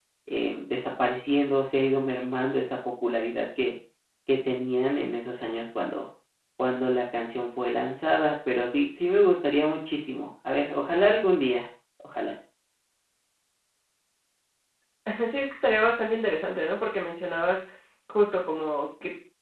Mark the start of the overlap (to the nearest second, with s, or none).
none